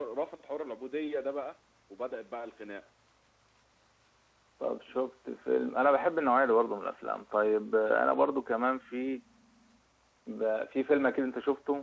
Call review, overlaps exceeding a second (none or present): none